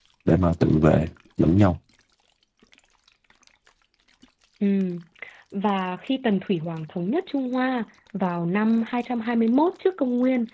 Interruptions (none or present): none